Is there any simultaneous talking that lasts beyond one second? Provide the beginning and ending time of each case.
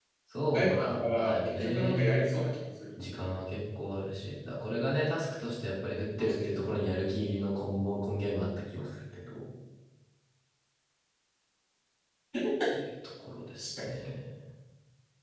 0.5-2.3

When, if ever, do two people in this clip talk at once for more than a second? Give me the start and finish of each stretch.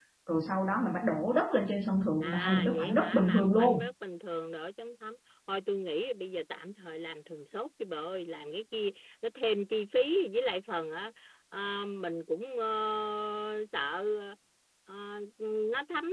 2.2-3.9

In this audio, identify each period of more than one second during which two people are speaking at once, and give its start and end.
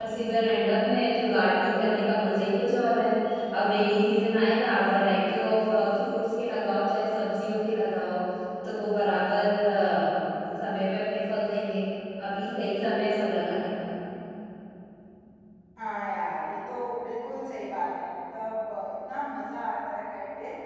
none

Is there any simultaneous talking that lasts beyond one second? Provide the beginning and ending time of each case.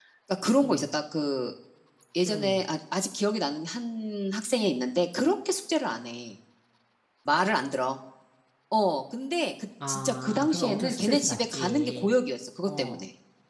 9.9-12.1

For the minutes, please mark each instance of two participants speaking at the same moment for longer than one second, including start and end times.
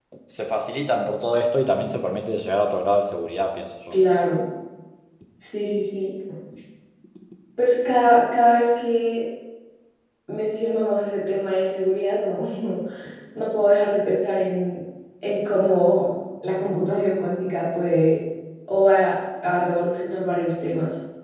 none

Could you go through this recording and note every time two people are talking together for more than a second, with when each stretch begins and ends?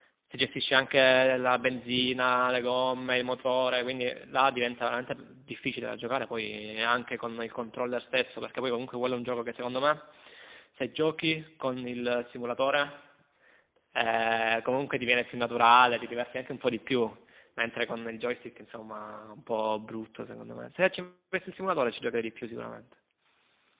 none

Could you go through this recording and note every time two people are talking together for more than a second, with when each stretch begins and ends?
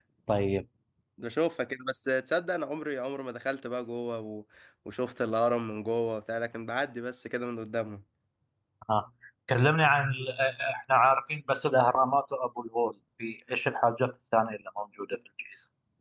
none

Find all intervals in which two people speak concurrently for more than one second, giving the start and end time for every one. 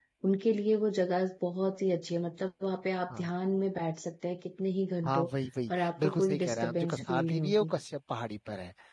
5.8-7.7

